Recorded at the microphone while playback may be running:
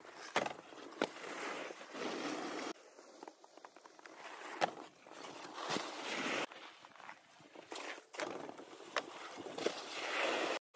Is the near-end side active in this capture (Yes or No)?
No